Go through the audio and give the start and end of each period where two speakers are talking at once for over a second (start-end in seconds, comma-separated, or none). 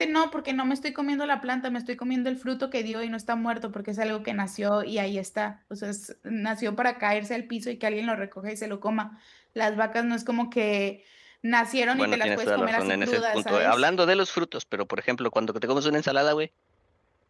11.9-13.8